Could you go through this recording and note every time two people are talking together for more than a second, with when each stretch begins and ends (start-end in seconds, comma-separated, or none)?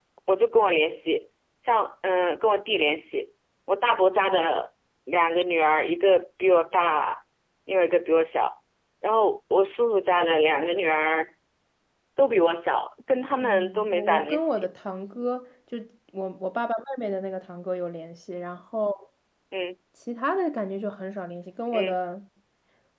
13.4-14.7